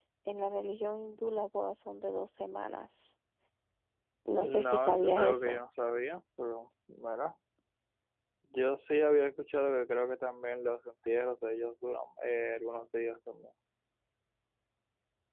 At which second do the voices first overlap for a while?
4.4 s

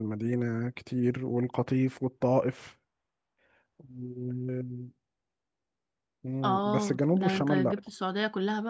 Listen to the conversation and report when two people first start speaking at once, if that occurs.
6.4 s

